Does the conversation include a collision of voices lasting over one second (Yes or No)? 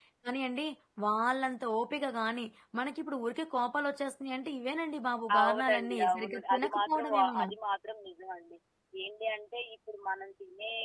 Yes